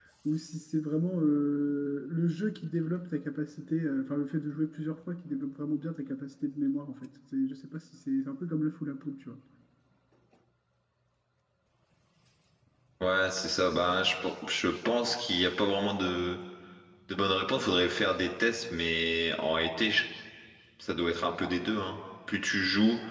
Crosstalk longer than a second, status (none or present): none